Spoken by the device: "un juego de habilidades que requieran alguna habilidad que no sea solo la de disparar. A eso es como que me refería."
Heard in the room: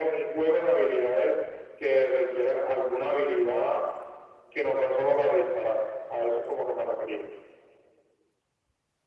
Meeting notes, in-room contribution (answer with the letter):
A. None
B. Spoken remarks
A